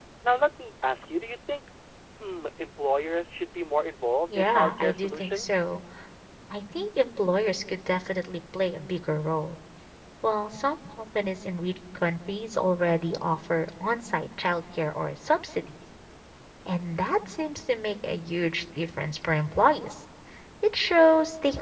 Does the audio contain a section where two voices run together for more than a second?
Yes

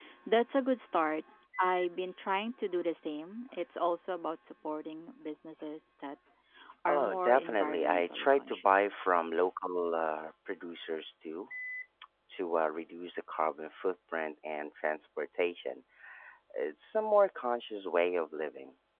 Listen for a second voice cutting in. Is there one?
Yes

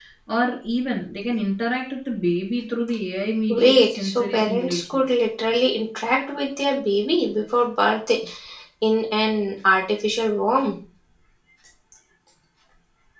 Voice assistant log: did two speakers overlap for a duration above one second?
Yes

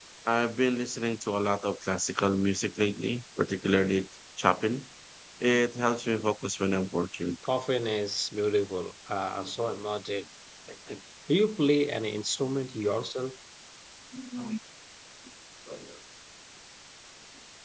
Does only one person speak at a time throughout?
Yes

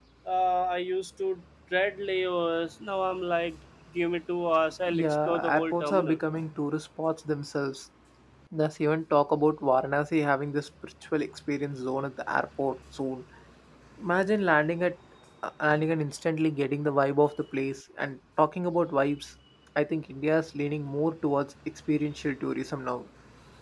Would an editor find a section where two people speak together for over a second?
Yes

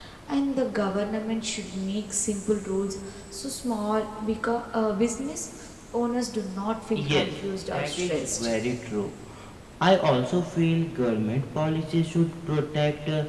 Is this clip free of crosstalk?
No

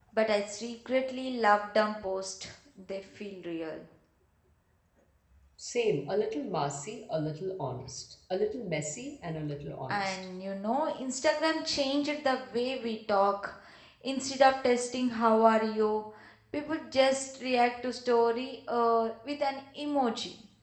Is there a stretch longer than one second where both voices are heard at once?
No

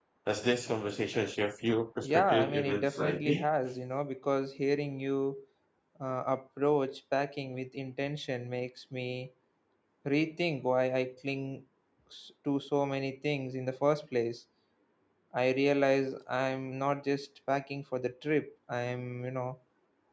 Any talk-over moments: Yes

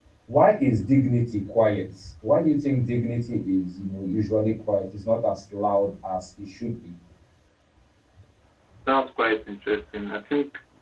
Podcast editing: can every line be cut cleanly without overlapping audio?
Yes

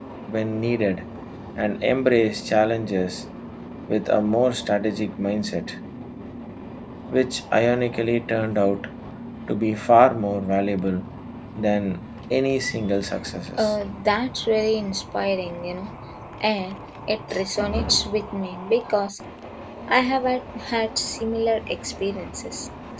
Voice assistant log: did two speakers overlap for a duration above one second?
No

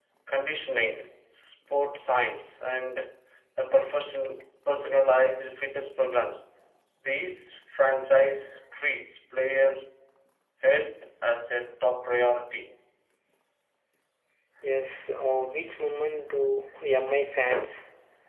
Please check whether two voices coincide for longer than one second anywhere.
No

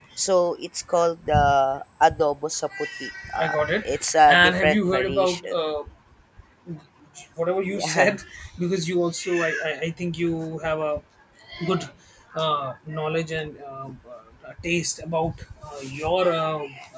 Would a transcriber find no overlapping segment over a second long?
No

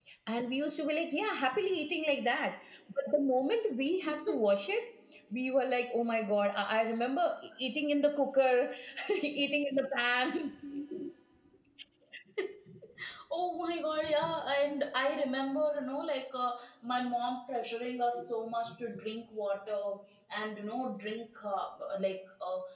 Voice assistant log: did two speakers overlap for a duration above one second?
No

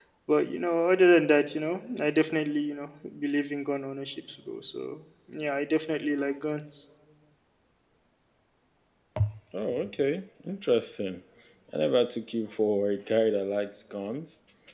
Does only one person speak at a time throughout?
Yes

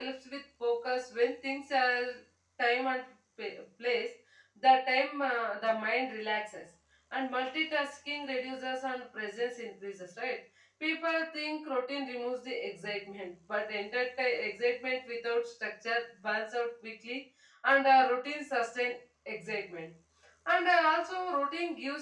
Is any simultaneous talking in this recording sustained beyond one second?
No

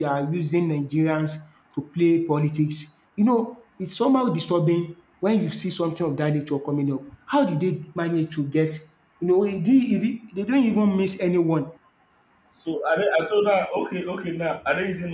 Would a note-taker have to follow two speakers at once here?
No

